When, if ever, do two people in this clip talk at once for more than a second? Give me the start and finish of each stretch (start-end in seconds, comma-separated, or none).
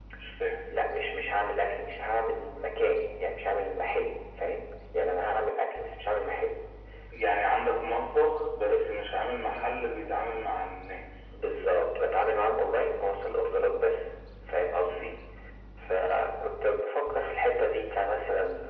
none